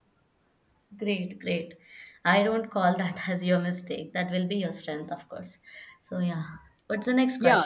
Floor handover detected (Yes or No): Yes